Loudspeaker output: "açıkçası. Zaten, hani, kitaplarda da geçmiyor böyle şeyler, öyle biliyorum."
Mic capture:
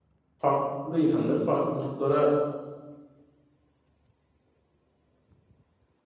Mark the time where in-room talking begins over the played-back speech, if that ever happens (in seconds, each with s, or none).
0.4 s